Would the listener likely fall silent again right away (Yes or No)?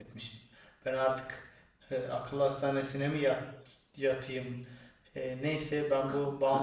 Yes